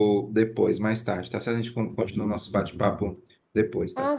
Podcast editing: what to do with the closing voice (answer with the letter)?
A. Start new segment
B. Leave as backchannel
A